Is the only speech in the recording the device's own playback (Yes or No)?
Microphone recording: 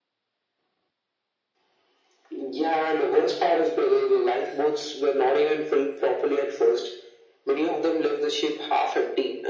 Yes